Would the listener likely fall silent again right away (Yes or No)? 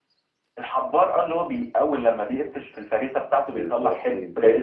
No